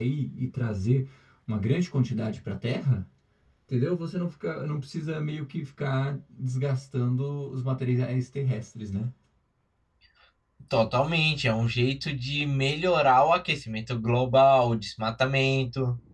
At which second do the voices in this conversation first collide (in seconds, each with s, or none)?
none